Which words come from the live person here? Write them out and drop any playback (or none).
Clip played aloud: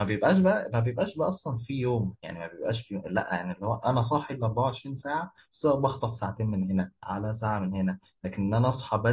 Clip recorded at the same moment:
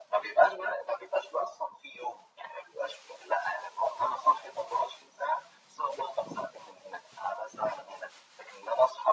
none